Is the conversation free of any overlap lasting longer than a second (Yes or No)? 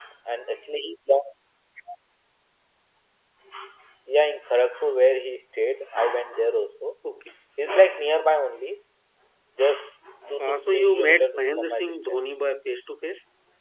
No